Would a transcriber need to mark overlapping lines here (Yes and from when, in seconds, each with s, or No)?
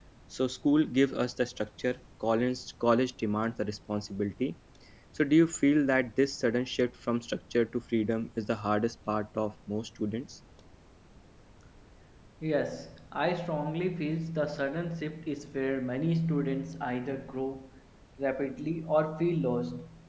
No